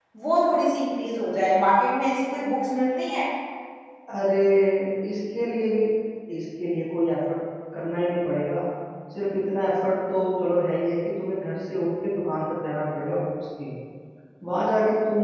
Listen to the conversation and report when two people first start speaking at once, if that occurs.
none

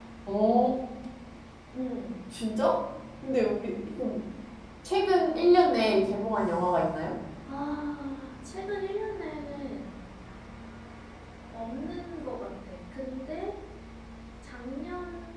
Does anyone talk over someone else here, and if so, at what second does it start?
none

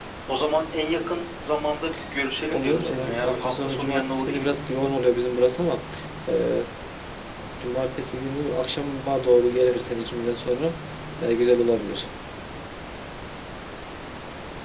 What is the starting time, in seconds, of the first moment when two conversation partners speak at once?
2.4 s

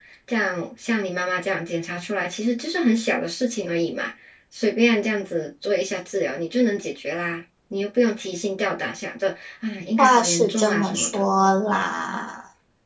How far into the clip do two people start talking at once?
10.0 s

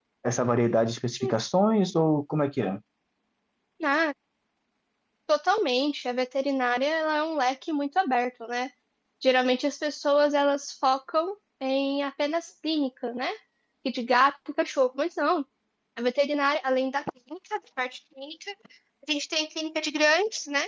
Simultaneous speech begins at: none

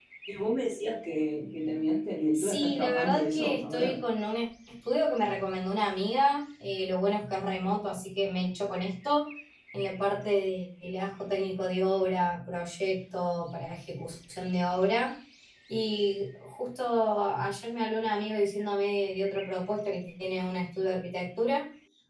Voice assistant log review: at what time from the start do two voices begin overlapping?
2.3 s

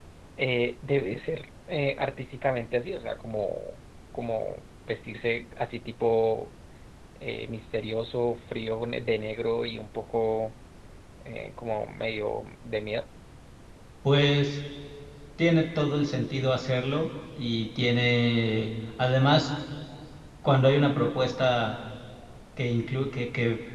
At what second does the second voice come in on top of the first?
none

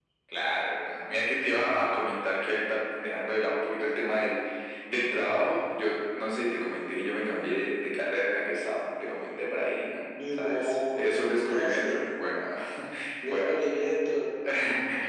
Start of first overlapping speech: 10.4 s

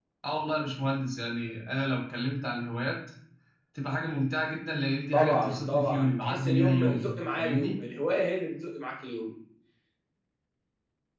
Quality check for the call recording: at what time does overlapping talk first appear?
5.1 s

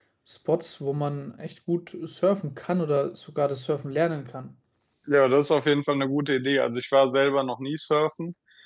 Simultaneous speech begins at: none

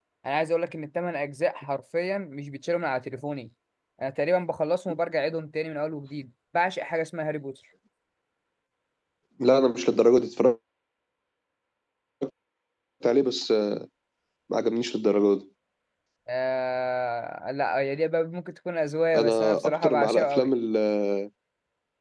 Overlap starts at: 19.1 s

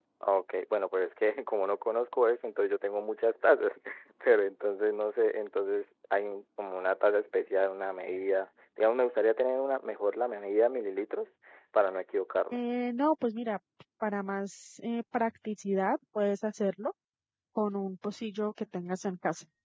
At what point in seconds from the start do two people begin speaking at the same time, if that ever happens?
none

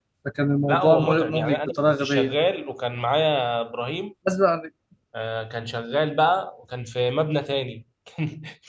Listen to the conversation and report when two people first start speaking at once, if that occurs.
0.7 s

